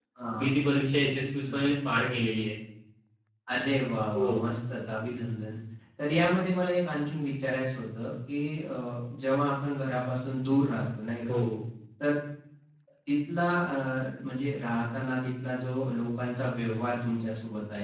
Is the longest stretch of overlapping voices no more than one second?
Yes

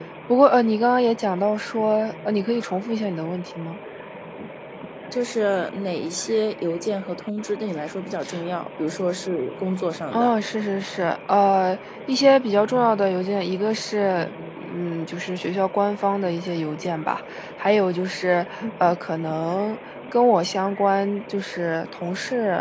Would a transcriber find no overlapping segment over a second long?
Yes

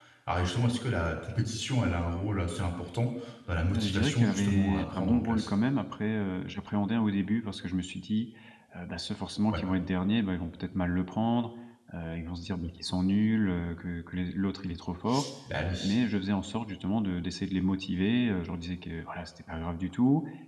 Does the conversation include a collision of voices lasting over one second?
Yes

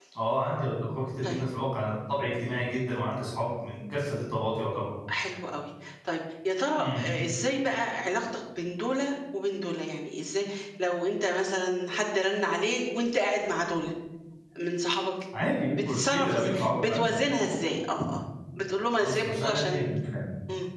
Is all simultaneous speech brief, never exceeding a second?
No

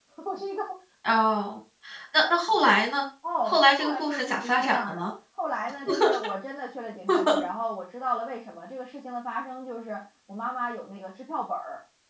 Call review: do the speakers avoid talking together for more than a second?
No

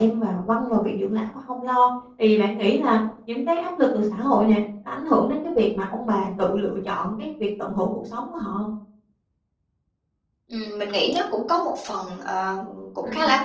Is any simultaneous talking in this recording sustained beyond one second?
No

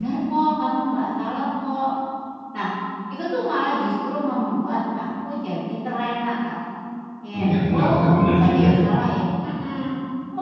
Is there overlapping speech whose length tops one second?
Yes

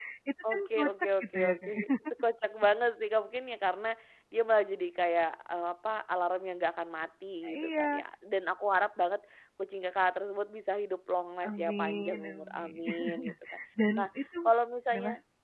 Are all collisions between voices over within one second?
No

